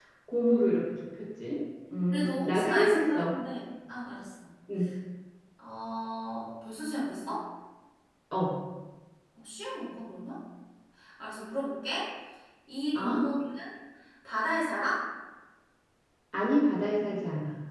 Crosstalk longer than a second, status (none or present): present